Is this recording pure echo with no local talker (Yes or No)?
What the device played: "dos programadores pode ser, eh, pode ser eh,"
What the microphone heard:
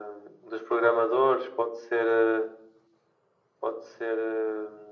Yes